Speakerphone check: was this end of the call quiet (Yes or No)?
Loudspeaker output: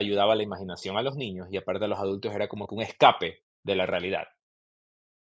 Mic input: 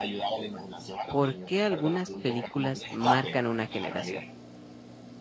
No